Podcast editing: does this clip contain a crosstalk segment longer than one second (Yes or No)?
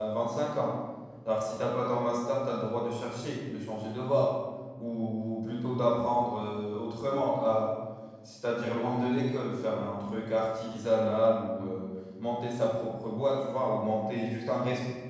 No